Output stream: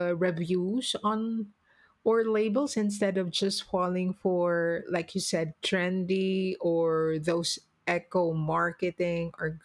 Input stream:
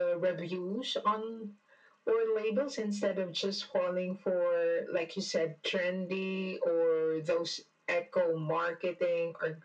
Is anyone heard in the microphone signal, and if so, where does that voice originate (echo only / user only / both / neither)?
echo only